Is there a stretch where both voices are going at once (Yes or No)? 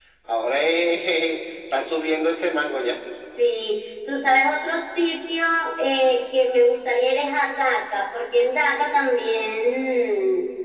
No